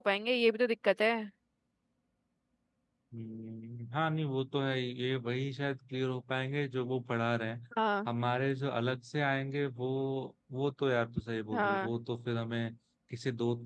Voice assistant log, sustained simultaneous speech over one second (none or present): none